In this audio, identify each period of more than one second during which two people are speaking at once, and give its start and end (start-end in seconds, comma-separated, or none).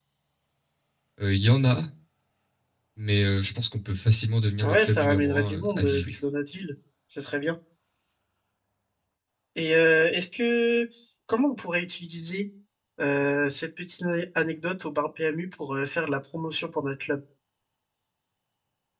4.6-6.0